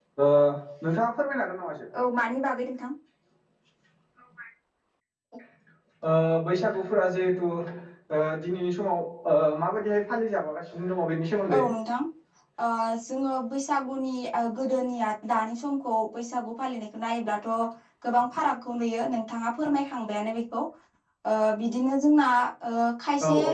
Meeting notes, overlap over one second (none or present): none